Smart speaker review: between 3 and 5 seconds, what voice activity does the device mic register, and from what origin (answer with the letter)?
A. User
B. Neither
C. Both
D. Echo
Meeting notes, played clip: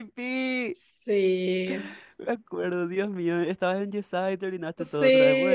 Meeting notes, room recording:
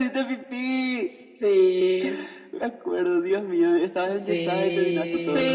C